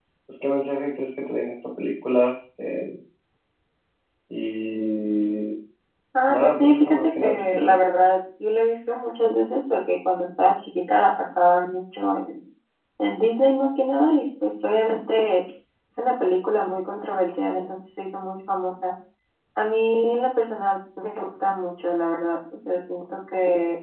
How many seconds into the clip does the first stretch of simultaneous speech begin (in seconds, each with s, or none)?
6.3 s